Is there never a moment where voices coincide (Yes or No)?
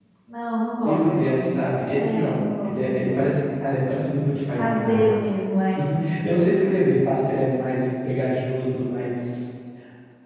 No